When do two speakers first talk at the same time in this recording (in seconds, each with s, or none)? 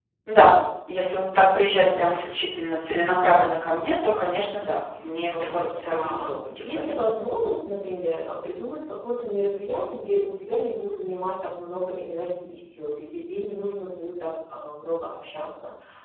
5.3 s